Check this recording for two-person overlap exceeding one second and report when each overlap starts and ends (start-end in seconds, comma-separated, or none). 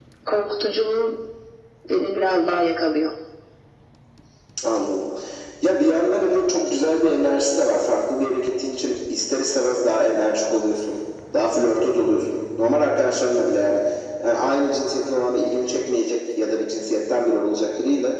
none